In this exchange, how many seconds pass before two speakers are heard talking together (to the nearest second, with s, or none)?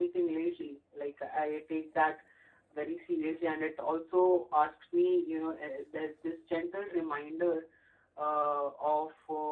none